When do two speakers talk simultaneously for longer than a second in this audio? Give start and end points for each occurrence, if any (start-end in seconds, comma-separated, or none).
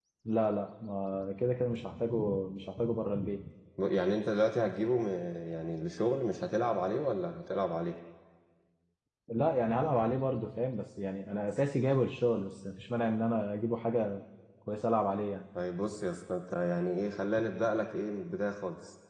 none